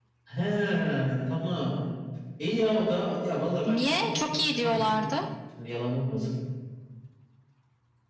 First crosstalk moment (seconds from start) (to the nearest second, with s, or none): 4 s